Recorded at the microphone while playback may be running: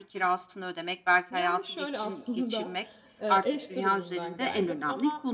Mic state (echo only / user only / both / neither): both